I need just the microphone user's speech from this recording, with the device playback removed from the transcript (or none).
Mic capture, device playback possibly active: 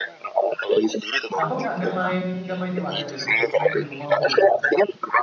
abang nggak nggak main nggak main di warnet itu. Main di rumah full.